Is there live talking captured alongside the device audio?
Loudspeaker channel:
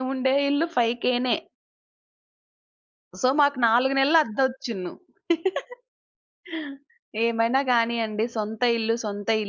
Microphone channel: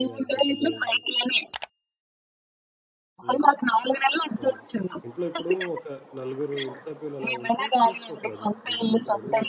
Yes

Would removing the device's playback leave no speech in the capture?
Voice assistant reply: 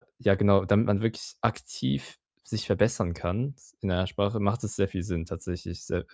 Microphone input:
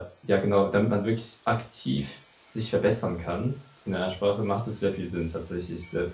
Yes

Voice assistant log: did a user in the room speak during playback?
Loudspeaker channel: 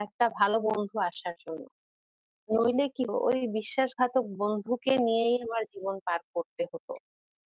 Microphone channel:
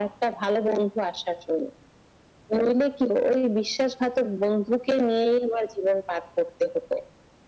No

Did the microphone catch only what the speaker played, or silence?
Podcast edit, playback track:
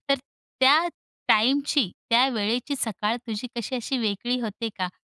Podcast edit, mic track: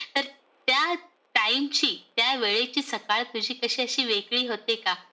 Yes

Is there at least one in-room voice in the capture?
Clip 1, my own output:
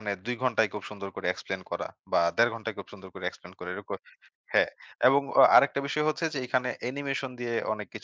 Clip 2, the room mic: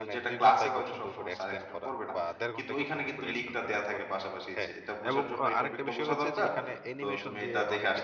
Yes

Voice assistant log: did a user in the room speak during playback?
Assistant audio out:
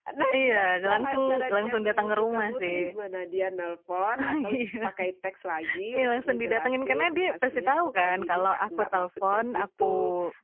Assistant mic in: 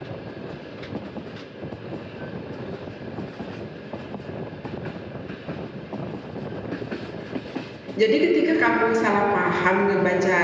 Yes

